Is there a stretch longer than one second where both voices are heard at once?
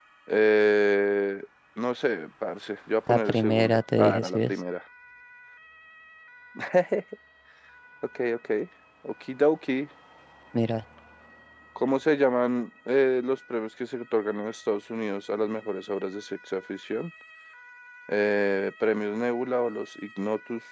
Yes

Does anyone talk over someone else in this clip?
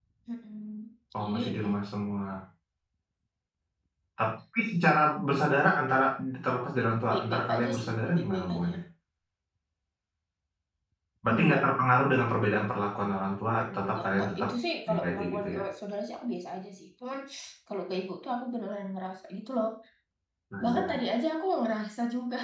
Yes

